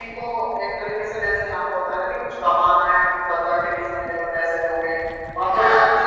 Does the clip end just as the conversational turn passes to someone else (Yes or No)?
No